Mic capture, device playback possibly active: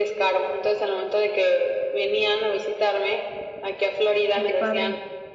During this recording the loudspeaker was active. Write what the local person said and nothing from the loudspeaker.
Ay, qué padre.

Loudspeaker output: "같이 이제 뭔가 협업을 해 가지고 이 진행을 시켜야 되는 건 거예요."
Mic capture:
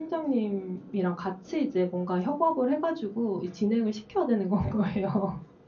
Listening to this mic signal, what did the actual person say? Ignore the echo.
none

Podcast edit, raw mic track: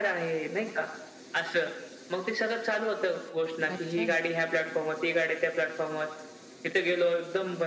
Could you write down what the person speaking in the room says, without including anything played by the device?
अच्छा.

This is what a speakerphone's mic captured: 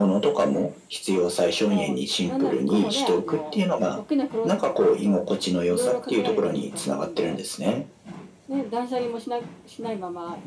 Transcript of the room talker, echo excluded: none

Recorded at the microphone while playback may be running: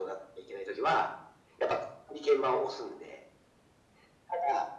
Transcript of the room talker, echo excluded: none

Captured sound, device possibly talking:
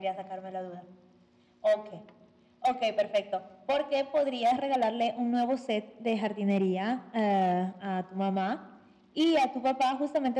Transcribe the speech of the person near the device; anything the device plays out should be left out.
none

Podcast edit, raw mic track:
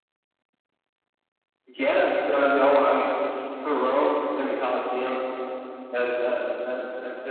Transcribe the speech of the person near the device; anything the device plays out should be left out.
none

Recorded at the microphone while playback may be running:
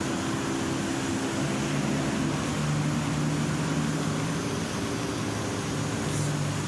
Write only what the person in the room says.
none

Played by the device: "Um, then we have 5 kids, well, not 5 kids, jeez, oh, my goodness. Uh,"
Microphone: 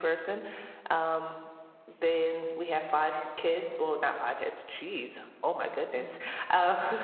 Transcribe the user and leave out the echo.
Mhm.

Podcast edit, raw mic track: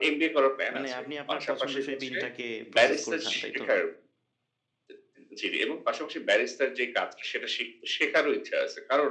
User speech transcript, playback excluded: মানে আপনি আপনার পছন্দ সেই বিনটাকে প্রসেস করে খান, তাইতো?

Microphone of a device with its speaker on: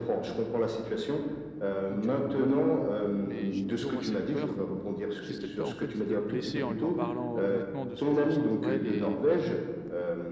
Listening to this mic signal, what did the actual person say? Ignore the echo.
donc, heu donc, voilà. Mais j'ai toujours moi cette peur j'ai cette peur en fait de le blesser en lui en parlant honnêtement de ce que je ressens pour elle et

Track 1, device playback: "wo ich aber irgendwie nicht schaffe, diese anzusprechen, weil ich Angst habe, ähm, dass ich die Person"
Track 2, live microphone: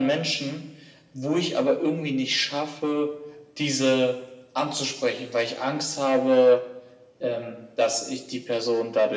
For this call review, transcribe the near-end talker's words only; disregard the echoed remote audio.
none

